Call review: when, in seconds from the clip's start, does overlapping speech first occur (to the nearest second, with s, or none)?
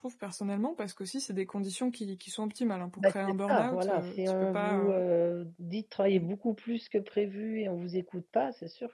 3 s